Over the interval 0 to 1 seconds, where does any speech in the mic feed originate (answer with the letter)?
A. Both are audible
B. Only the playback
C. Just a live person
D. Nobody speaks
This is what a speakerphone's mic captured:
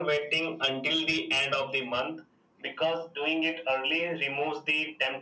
B